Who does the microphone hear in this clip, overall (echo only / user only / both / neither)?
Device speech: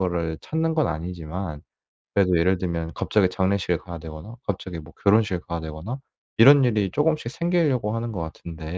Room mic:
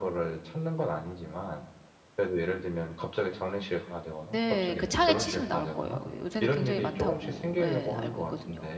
both